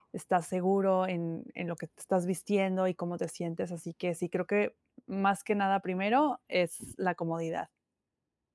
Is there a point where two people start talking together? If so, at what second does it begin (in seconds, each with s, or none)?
none